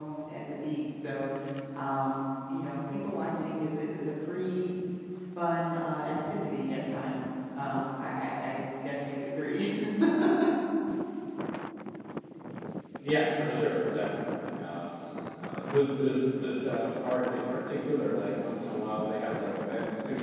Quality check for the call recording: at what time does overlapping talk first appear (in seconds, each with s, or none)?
none